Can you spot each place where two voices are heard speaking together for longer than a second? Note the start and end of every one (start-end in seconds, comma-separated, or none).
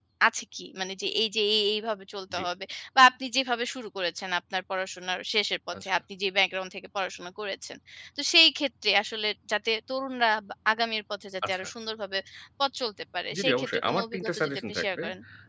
13.3-14.8